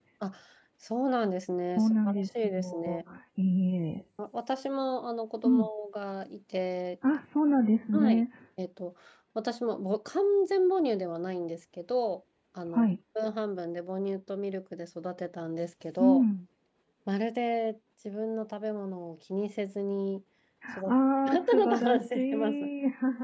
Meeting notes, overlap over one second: present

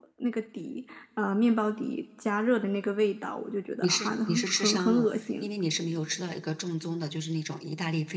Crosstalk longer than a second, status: present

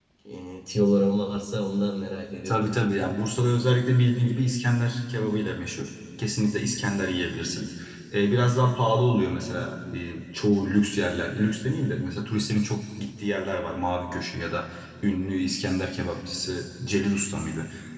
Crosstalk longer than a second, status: none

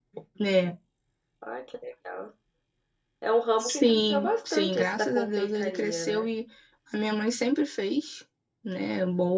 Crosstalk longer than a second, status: present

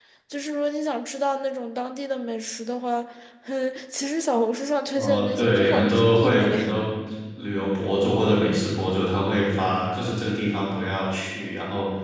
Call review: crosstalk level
present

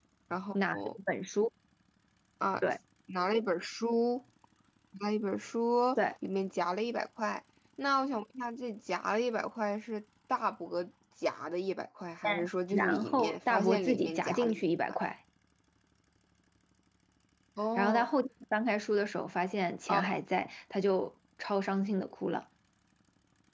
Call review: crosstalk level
present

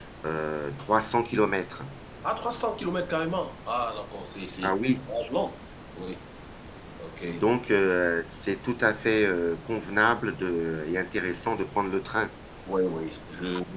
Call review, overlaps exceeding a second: none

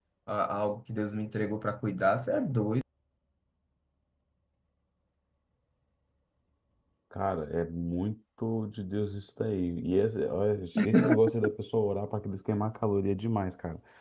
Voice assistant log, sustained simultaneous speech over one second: none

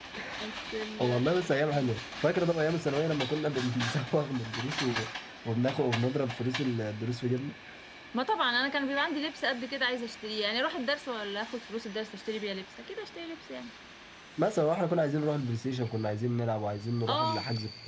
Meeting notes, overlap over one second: none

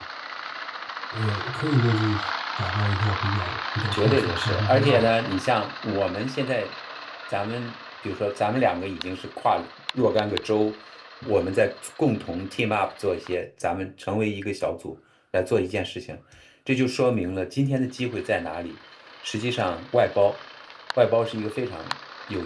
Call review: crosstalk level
present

